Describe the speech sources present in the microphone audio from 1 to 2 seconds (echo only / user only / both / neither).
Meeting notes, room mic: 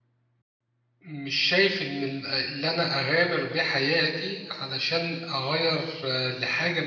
user only